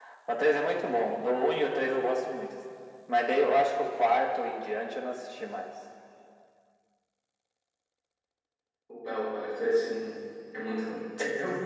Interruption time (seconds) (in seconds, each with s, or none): none